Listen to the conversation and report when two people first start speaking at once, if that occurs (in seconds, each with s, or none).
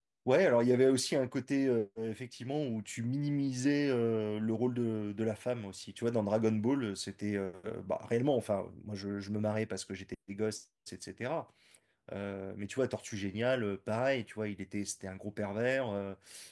none